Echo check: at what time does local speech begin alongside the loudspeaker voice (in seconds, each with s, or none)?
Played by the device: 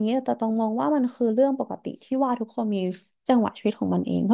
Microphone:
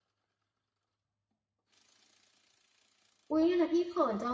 3.3 s